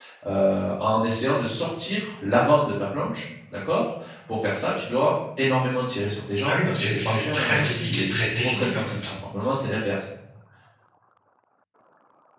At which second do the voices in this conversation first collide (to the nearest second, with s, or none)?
6 s